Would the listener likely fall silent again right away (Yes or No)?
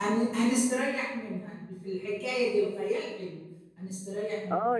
No